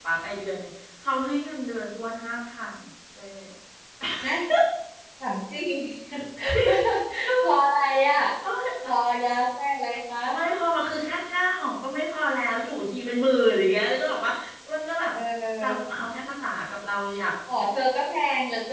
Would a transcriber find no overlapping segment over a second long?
Yes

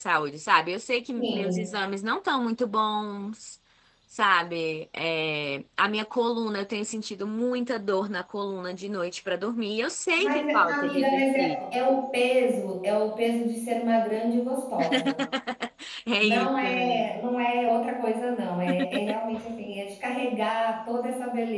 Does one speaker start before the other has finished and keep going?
Yes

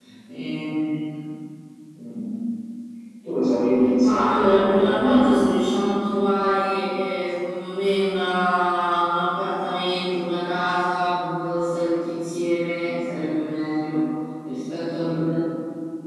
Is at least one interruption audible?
Yes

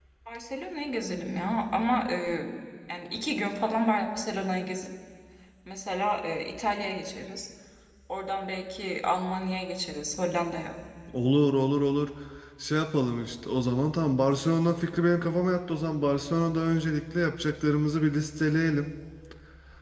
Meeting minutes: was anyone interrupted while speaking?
No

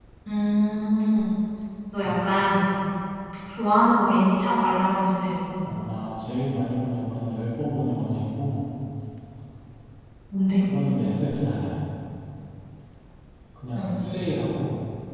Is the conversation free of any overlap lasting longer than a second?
Yes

